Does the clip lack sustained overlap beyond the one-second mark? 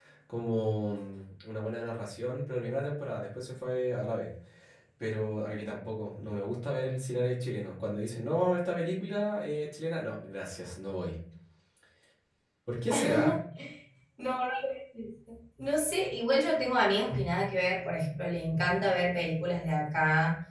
Yes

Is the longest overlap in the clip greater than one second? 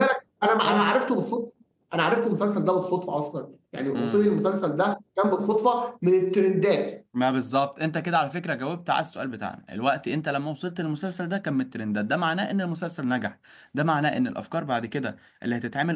No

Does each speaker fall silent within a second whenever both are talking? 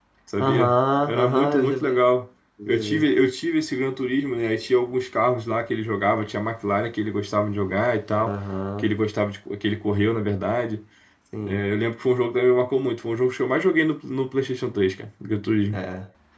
No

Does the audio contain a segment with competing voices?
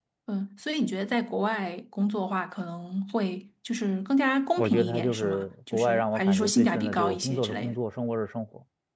Yes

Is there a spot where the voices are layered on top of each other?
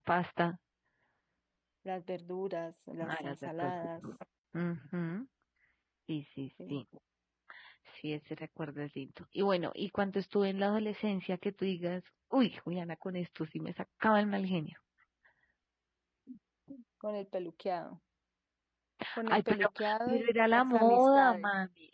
Yes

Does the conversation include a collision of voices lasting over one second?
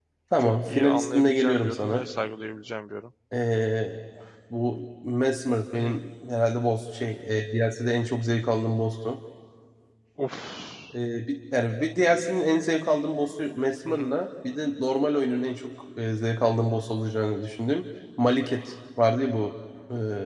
Yes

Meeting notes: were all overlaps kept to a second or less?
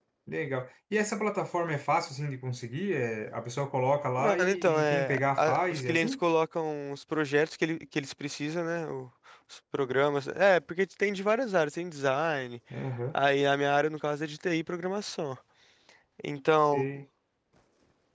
No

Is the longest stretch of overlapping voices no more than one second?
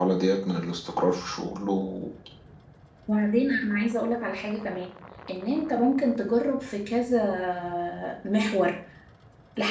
Yes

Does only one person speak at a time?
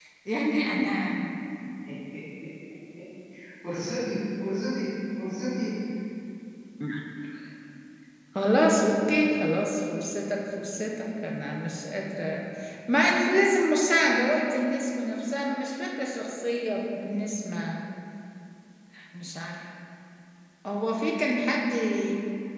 Yes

